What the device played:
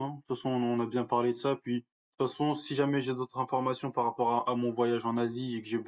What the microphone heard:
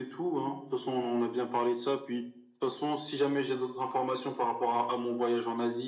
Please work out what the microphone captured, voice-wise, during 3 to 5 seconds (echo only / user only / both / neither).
echo only